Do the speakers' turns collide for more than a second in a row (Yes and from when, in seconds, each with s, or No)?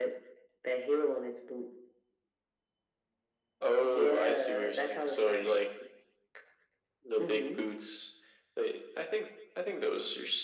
Yes, from 3.8 s